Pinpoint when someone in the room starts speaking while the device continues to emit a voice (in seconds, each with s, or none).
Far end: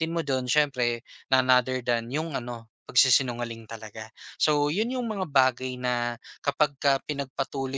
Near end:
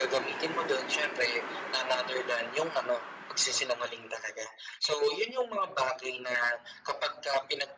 none